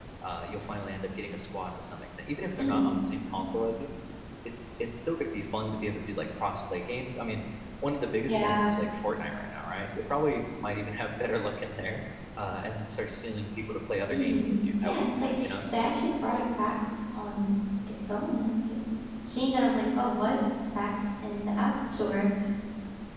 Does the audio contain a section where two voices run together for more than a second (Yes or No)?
Yes